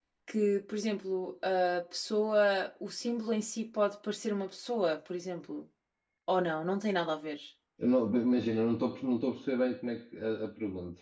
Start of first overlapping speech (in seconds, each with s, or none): none